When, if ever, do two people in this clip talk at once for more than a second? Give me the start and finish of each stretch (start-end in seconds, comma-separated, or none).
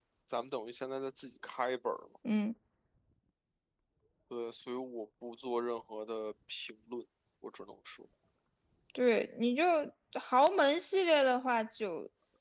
none